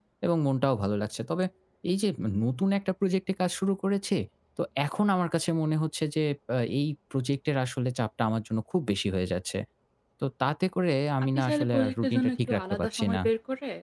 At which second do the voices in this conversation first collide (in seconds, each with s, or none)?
11.3 s